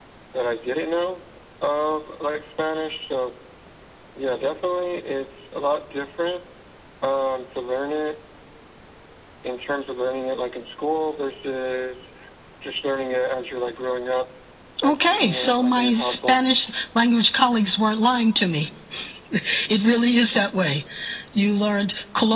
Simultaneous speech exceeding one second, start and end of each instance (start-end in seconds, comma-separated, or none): 14.9-16.4